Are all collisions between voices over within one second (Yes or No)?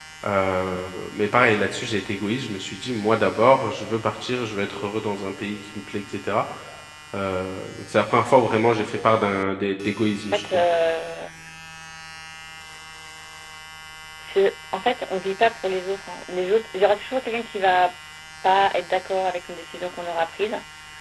Yes